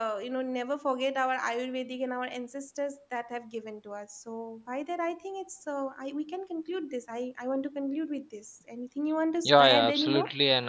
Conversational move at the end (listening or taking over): taking over